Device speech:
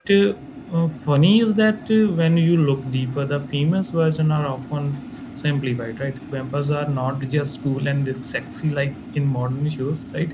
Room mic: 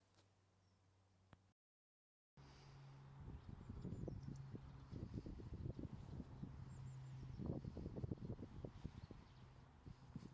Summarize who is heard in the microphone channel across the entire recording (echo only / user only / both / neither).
neither